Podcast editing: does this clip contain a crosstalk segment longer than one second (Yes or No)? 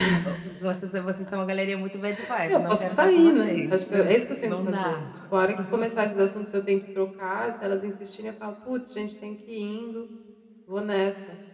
Yes